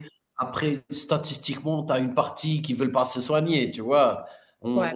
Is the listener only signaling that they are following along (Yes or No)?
Yes